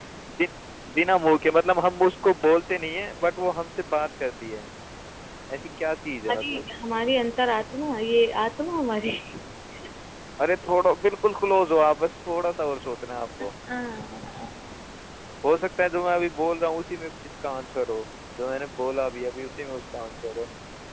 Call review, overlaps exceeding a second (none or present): none